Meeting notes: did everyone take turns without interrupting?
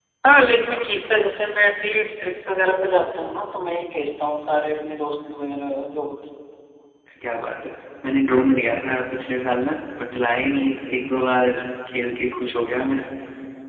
Yes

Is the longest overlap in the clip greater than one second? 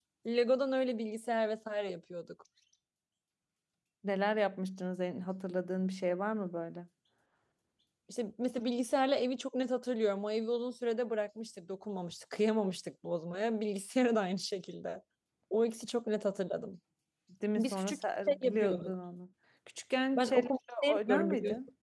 Yes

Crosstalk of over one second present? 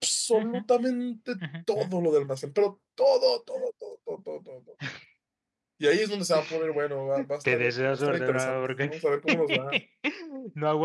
Yes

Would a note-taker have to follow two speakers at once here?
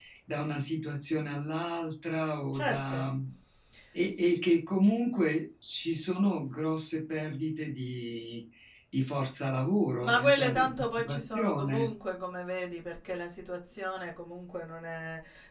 Yes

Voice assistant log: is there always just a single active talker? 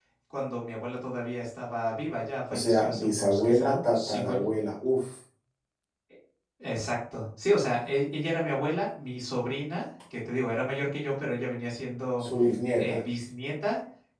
No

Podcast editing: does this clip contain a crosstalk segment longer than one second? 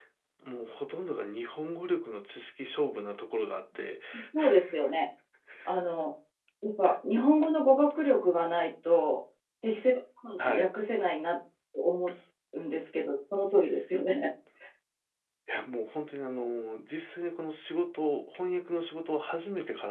No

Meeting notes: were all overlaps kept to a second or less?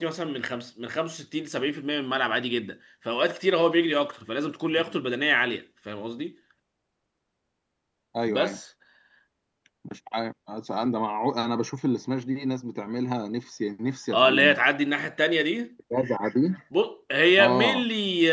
Yes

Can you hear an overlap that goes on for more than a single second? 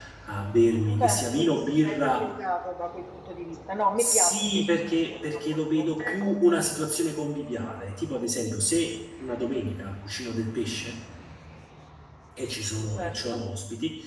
Yes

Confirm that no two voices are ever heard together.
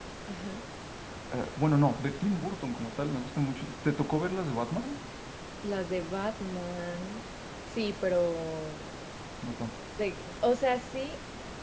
Yes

